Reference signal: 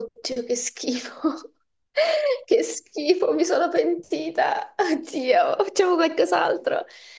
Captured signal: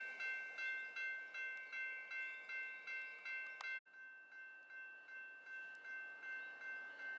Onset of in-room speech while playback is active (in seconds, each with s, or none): none